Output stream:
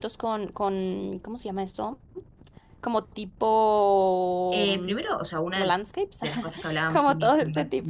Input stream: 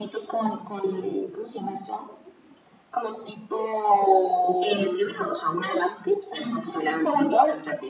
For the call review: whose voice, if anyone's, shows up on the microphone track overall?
echo only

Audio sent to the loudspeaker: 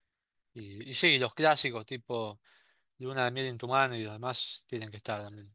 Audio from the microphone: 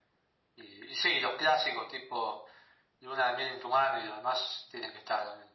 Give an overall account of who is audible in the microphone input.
echo only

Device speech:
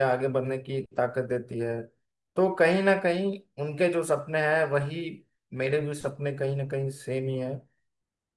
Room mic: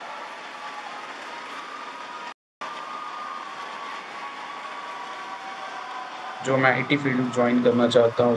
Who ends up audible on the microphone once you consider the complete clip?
user only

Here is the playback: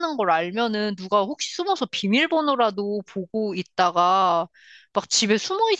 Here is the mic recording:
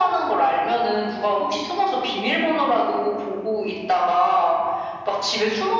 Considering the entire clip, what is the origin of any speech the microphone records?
echo only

